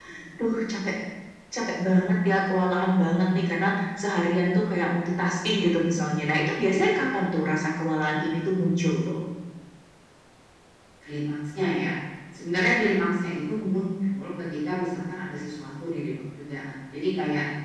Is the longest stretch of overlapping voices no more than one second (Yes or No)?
Yes